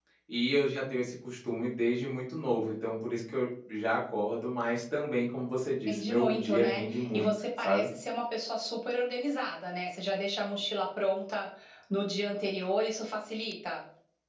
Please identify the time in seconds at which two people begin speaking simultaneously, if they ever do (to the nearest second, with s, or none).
6 s